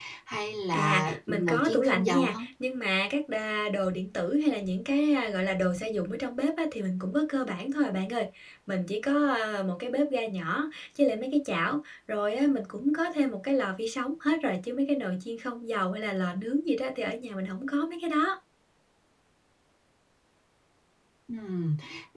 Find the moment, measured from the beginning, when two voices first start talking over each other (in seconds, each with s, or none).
0.7 s